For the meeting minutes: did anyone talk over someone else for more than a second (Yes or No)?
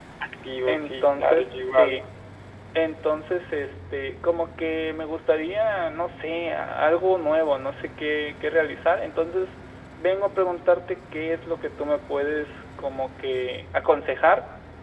Yes